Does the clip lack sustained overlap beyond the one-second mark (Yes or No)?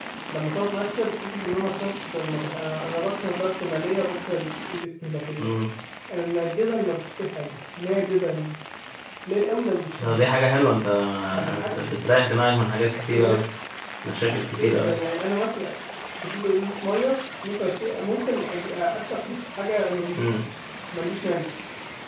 Yes